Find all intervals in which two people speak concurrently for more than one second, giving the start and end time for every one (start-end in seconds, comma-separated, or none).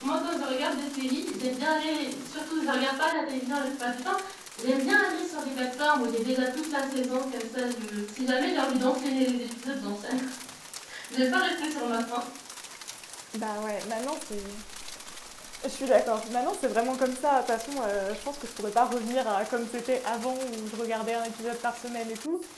none